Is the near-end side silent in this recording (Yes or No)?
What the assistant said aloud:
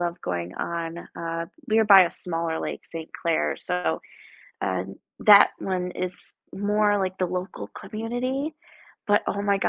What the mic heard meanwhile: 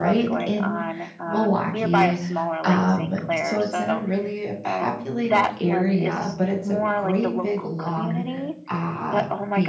No